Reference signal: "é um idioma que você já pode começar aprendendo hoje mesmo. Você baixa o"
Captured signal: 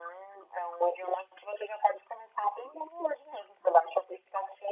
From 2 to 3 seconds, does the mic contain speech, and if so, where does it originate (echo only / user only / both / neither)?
echo only